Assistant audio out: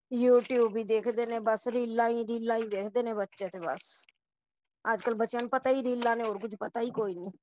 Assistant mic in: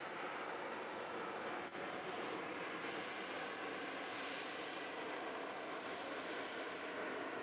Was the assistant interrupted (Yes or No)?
No